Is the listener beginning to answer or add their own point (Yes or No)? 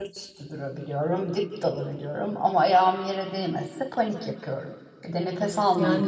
Yes